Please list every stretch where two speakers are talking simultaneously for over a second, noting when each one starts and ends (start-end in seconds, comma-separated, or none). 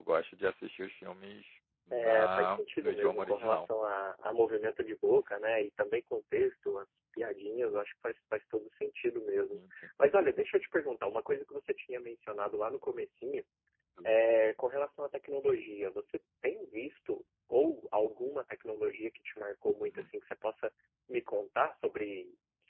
1.9-3.7